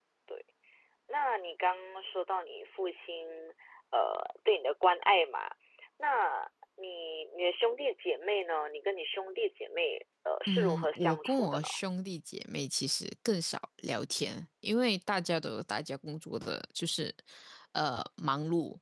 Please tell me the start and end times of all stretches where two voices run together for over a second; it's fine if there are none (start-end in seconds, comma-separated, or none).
10.5-11.7